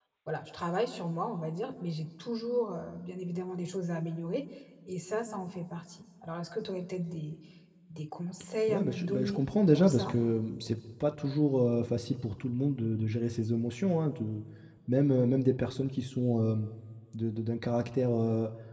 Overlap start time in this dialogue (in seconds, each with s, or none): 8.7 s